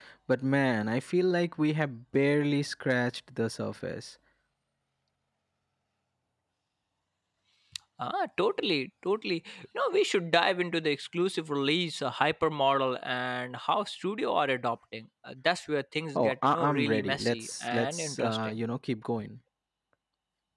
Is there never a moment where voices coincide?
No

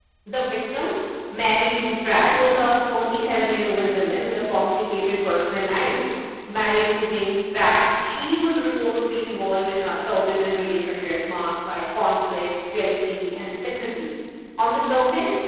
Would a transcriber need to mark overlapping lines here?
No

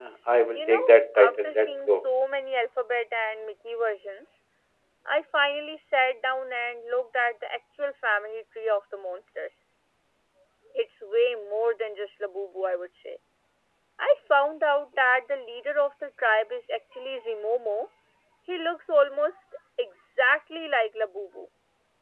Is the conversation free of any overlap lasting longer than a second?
No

